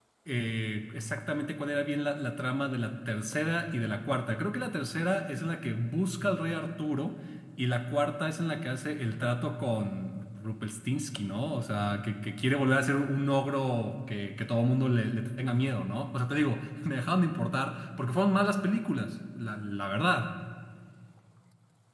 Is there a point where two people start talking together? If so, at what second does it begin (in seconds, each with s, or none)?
none